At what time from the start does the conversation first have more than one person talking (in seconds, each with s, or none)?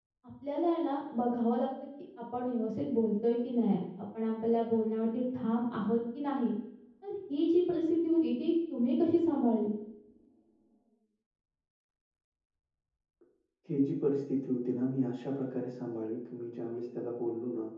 none